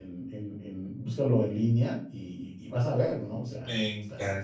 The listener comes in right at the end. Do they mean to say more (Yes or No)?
Yes